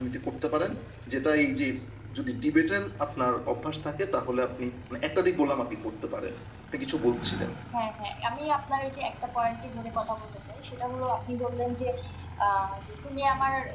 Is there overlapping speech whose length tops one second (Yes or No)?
No